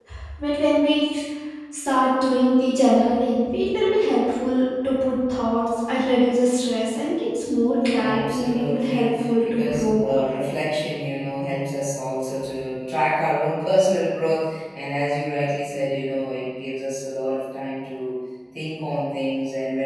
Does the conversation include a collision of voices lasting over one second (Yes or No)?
Yes